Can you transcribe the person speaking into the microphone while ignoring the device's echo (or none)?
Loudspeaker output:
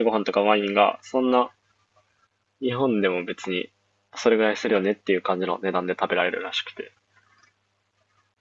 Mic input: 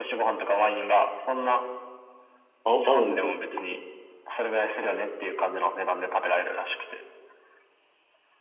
あ、青のモスク